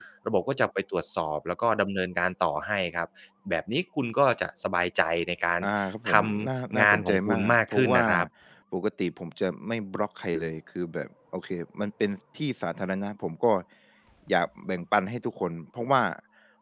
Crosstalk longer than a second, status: present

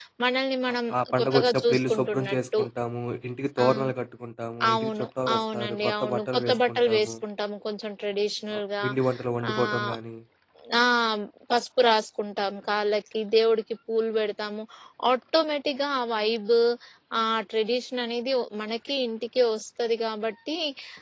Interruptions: present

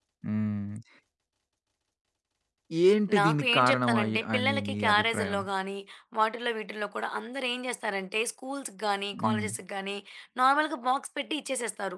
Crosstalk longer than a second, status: present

